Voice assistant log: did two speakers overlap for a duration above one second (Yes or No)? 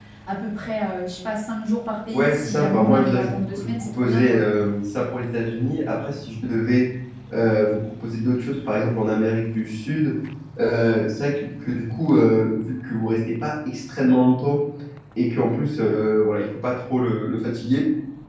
Yes